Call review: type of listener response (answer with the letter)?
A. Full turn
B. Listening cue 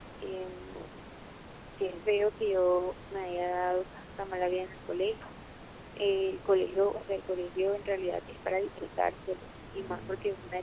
B